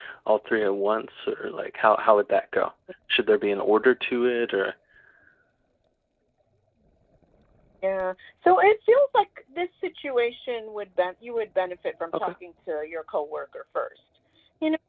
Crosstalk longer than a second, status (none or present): none